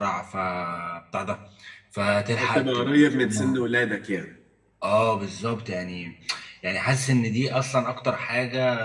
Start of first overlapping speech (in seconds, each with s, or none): 2.4 s